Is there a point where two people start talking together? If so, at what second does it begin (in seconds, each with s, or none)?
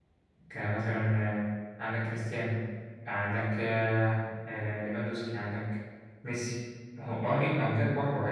none